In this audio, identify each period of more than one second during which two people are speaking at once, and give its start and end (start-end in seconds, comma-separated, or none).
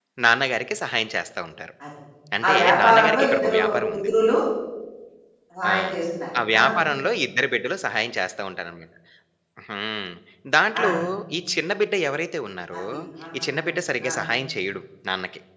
2.5-4.1